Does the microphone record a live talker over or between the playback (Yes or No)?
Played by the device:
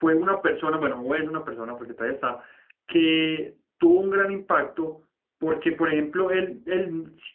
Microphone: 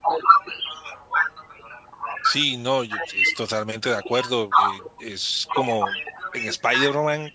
Yes